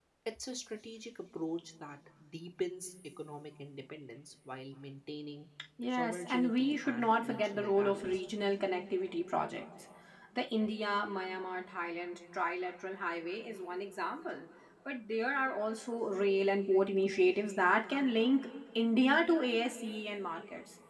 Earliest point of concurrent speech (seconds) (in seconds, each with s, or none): 5.9 s